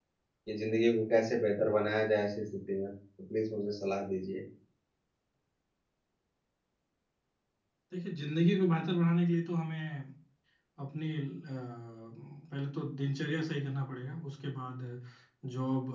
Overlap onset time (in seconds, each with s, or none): none